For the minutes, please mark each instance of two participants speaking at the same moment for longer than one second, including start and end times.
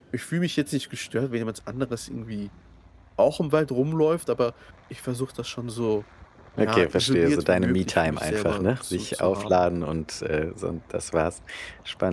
6.6-9.7

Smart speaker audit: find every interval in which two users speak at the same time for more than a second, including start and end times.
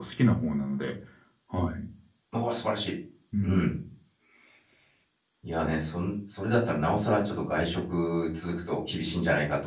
none

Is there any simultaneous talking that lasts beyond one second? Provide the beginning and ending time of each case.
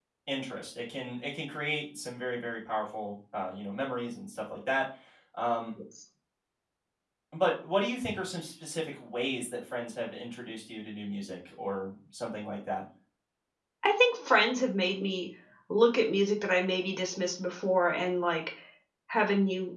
none

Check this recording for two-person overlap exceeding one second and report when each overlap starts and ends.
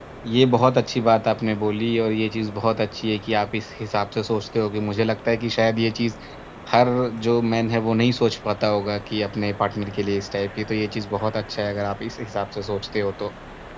none

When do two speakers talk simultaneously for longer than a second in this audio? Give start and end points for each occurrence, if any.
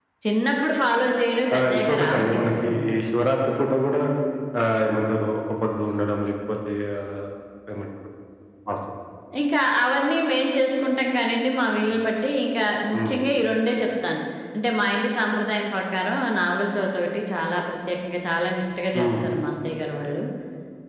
1.6-2.9

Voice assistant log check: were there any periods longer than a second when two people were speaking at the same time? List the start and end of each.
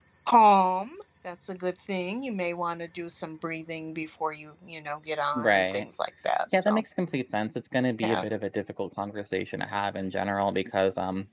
none

